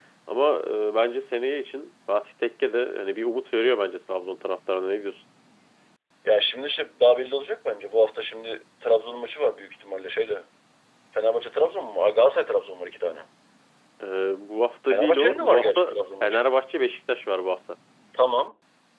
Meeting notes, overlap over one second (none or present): present